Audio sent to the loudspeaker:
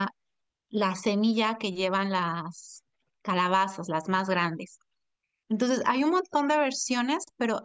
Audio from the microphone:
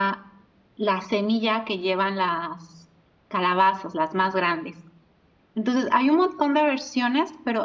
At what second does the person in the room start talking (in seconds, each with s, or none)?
none